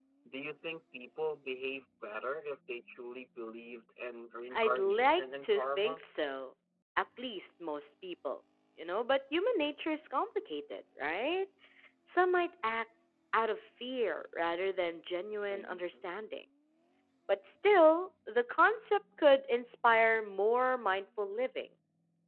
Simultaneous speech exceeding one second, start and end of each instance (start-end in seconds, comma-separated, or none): 4.5-6.0